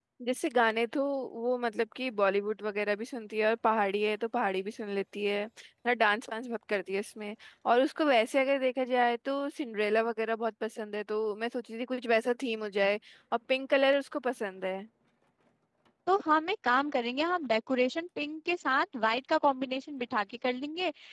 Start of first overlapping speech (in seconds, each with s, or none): none